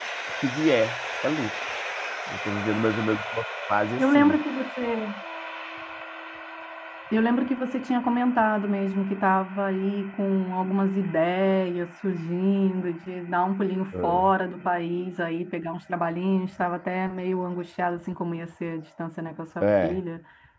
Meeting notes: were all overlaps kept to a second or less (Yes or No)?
Yes